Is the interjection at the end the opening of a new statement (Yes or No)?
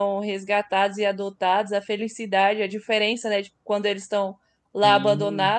No